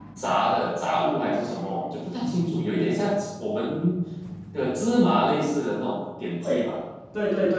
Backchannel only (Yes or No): No